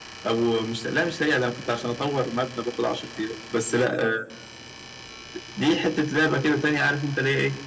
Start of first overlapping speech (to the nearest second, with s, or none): none